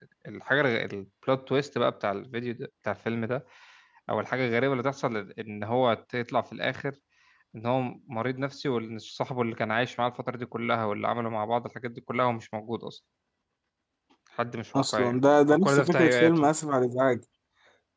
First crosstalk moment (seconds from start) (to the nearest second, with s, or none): 15 s